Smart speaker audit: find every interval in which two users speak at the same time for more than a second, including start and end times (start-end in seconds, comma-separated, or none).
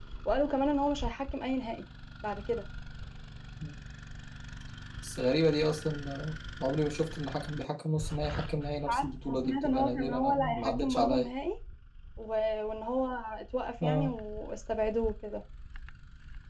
8.8-11.3